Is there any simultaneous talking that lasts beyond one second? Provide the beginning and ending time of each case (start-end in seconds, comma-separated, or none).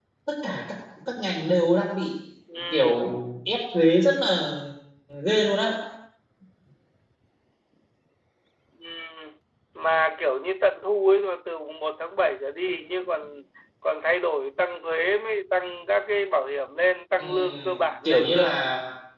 17.2-18.5